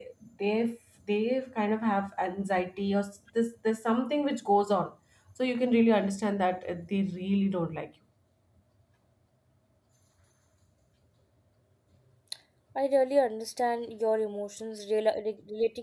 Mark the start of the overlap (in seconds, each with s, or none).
none